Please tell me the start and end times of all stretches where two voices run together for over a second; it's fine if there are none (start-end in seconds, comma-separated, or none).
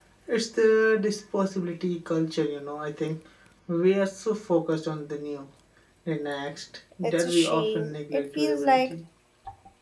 7.0-8.9